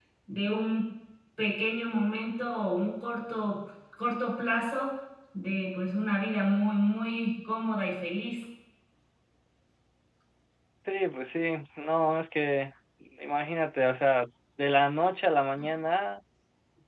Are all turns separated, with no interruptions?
Yes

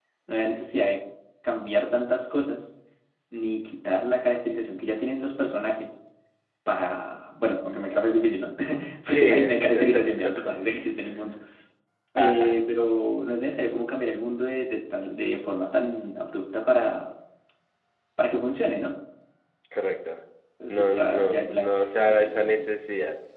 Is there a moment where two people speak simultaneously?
Yes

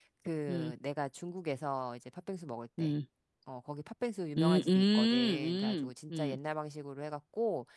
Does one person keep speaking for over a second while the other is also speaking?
Yes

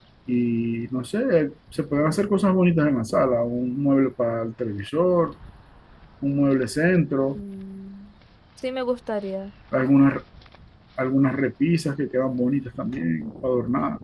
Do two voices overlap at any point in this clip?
No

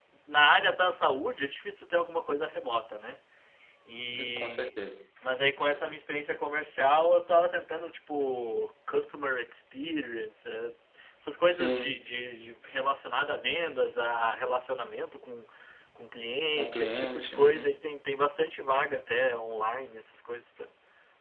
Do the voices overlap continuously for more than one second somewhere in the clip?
Yes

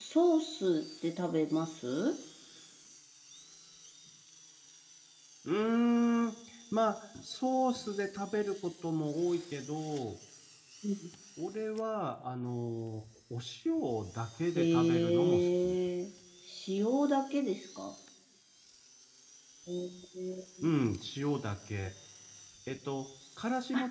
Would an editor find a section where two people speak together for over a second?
Yes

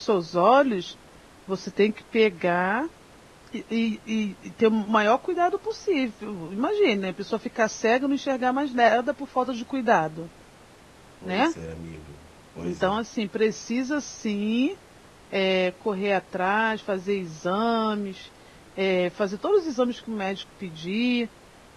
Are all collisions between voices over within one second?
Yes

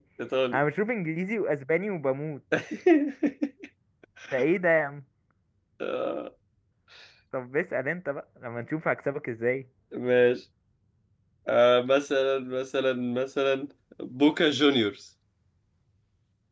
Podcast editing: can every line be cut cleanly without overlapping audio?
Yes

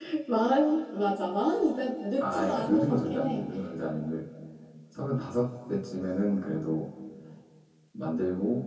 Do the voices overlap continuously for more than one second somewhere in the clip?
Yes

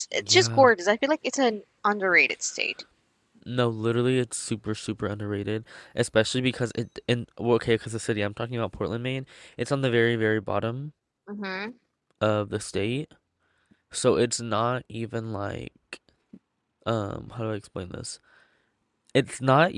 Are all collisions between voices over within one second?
Yes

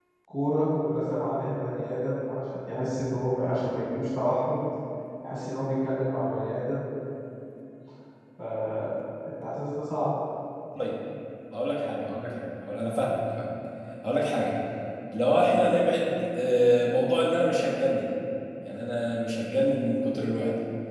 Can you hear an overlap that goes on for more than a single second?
No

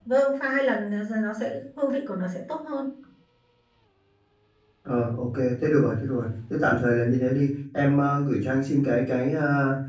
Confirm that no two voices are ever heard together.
Yes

